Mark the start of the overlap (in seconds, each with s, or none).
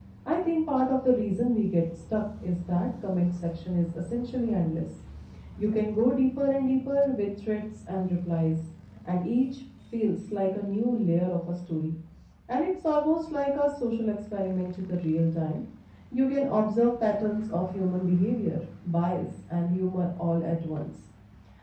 none